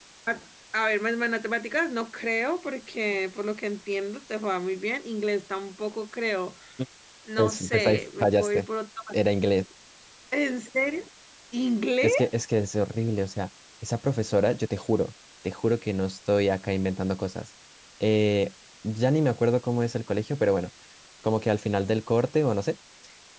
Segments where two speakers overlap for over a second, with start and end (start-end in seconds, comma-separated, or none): 7.4-8.7